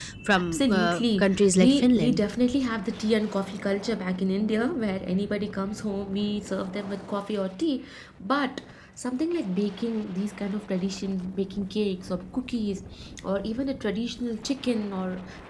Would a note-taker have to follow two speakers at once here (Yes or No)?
Yes